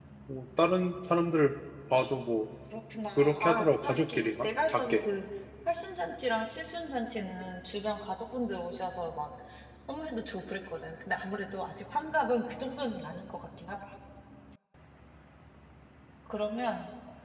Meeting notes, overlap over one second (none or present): present